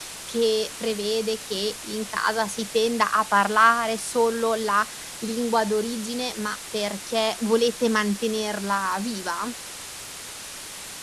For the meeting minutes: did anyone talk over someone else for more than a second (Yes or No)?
No